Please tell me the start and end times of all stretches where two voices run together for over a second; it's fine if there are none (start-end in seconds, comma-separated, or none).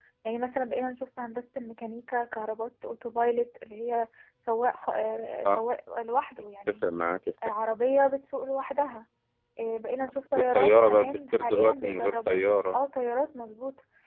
10.3-12.8